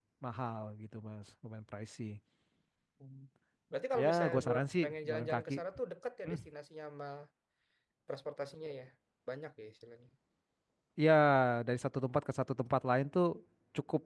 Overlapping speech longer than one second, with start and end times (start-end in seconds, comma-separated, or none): 4.0-5.5